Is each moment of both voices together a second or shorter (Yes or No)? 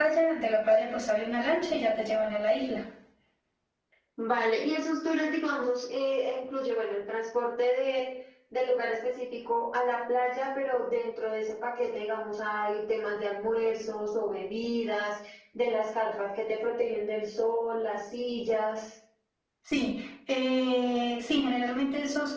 Yes